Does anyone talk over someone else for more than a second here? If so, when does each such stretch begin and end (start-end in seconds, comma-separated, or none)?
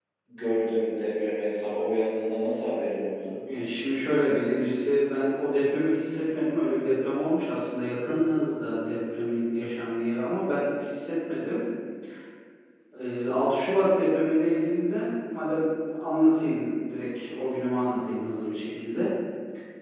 none